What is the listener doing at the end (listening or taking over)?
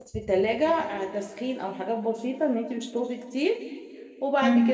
listening